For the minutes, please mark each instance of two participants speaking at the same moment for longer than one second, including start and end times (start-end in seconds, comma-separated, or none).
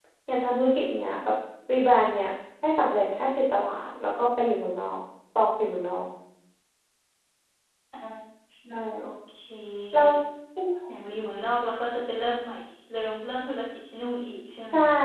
none